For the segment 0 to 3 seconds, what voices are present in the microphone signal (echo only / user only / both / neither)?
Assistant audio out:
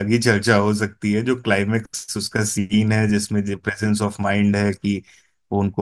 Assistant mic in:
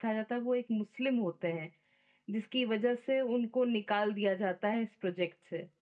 user only